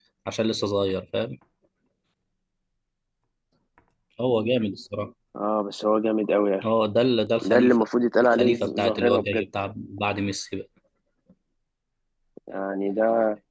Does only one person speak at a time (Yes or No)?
No